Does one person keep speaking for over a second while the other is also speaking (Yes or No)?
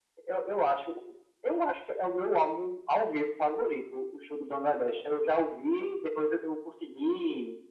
No